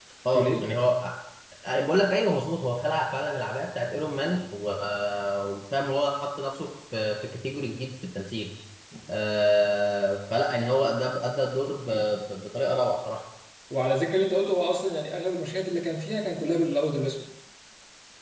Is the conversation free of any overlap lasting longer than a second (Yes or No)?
Yes